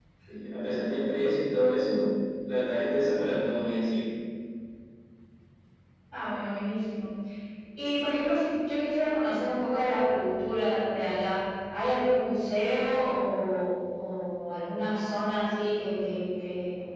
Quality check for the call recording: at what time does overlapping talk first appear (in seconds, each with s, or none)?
none